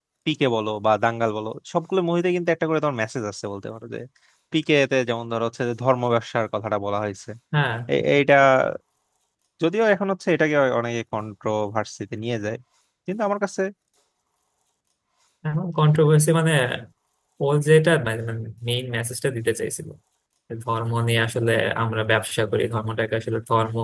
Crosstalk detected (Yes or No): No